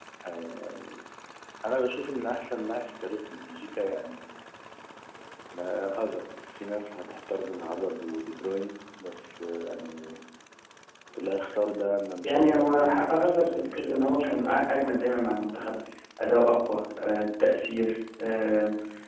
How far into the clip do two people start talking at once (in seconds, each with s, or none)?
12.2 s